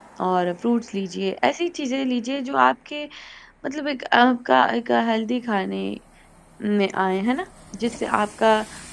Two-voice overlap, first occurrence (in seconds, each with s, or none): none